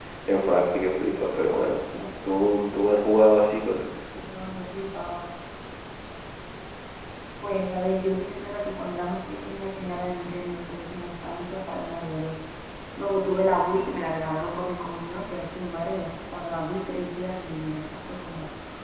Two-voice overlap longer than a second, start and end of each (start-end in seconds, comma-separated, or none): none